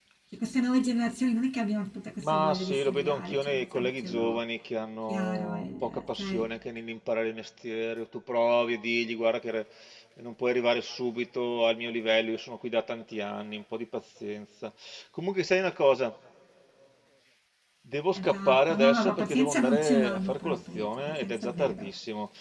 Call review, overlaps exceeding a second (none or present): present